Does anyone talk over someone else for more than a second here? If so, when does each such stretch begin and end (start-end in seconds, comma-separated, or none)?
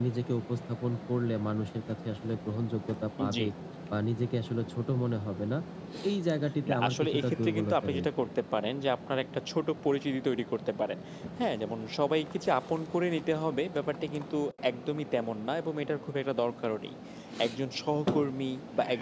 6.7-8.2